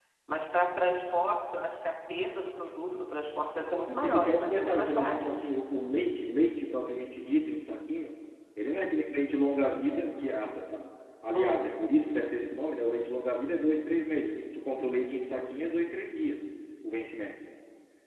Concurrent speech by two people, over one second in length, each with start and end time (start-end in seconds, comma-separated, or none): 3.9-5.4